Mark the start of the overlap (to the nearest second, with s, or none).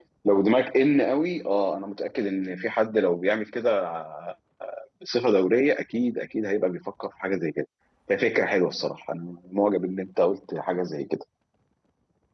none